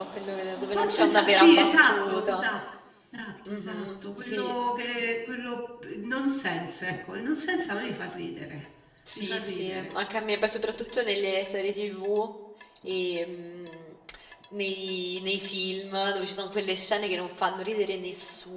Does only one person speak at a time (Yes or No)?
No